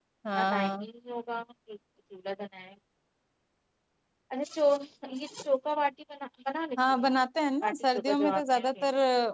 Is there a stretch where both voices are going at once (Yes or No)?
Yes